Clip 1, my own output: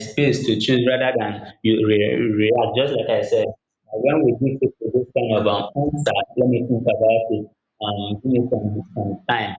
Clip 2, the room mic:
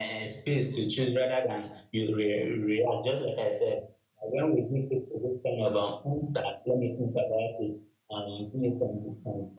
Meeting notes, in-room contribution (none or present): none